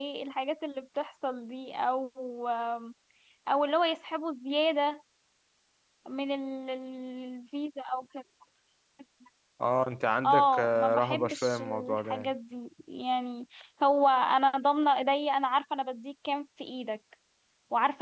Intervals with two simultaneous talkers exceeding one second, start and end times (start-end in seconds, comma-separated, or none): 10.2-12.3